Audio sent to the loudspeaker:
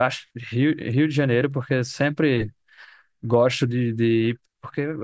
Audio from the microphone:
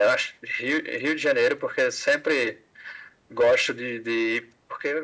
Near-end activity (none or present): none